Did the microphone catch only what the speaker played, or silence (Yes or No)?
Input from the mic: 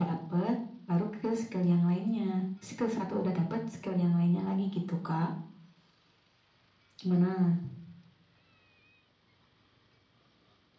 Yes